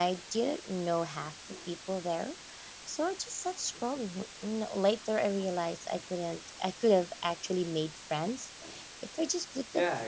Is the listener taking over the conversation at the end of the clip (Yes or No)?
Yes